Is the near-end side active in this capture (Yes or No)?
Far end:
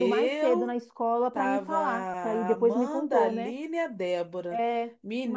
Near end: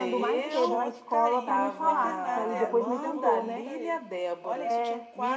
Yes